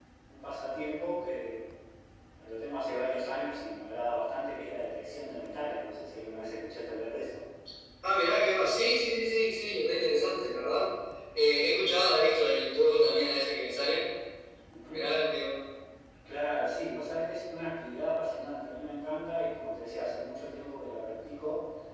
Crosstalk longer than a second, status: none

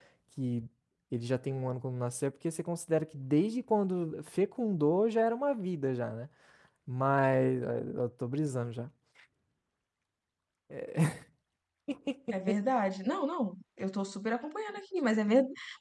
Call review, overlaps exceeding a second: none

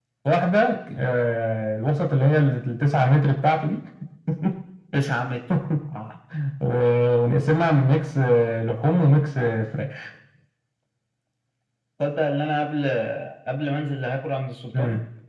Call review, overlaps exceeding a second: none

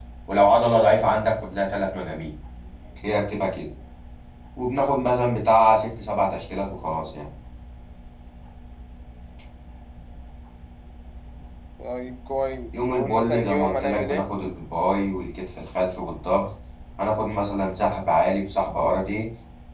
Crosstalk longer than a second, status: present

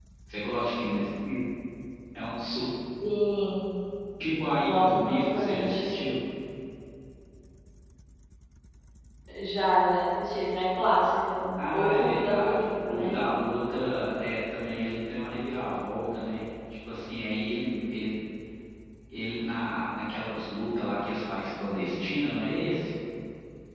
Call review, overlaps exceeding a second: present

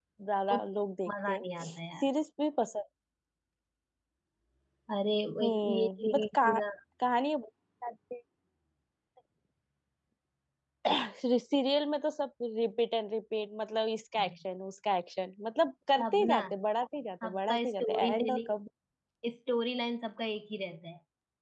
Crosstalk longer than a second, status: present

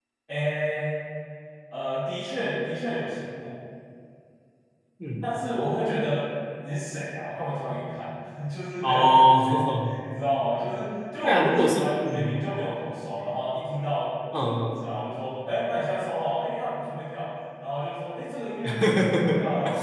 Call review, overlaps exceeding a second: present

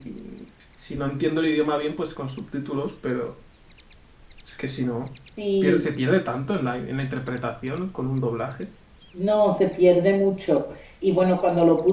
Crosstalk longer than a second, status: none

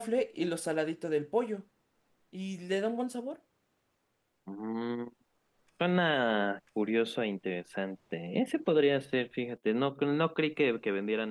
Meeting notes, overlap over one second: none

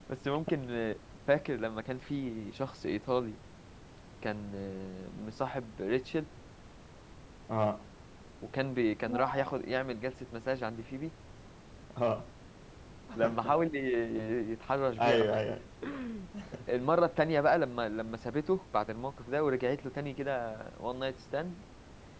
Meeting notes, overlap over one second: none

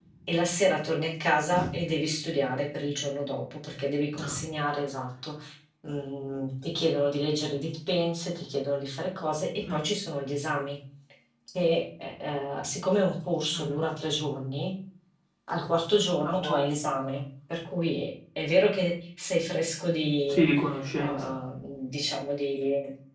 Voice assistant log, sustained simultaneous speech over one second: none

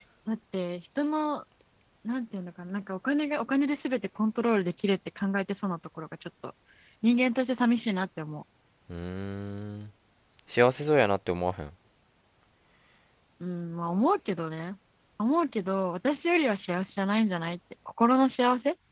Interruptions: none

